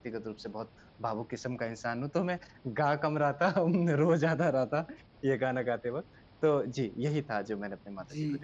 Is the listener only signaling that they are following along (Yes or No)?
No